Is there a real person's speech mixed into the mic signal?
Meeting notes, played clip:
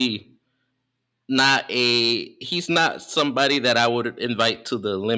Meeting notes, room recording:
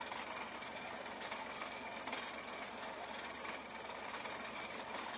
No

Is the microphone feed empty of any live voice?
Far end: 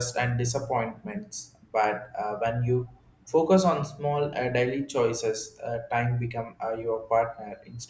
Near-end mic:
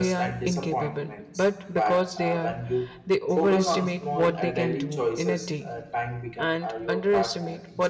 No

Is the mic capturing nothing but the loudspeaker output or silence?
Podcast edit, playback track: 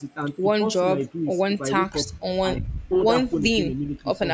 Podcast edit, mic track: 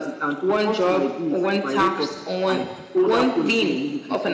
Yes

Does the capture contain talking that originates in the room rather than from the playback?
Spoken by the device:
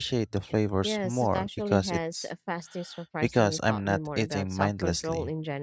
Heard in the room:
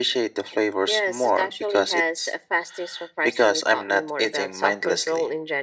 No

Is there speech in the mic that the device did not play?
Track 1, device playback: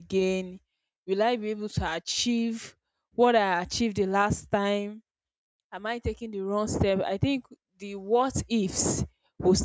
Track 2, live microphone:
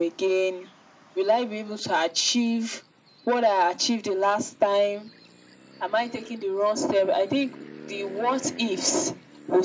No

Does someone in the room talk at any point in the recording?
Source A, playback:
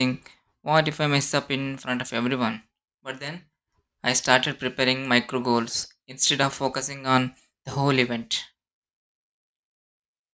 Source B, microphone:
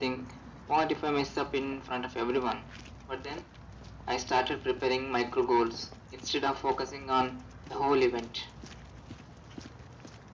No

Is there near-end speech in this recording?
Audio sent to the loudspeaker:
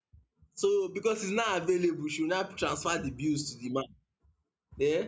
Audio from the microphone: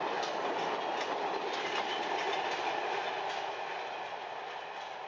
No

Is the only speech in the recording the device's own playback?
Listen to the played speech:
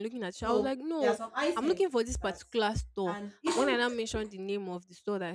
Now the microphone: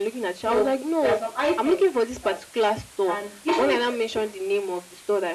Yes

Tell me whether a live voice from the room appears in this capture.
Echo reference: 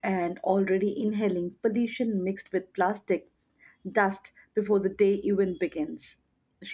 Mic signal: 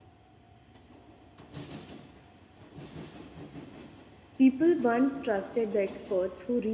Yes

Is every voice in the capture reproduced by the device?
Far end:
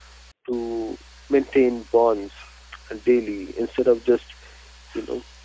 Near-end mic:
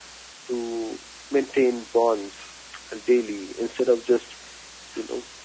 Yes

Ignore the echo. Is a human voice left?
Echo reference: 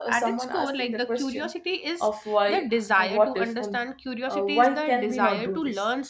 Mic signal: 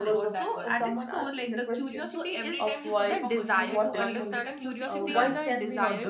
Yes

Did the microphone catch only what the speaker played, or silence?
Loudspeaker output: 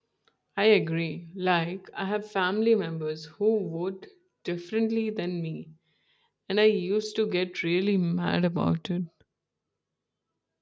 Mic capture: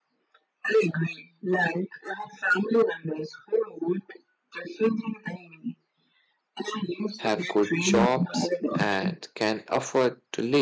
No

